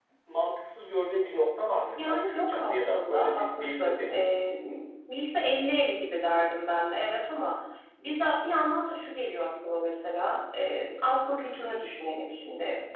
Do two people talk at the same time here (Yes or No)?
Yes